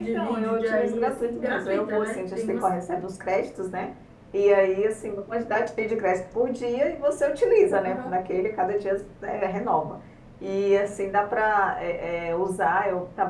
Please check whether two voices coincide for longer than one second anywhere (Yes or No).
Yes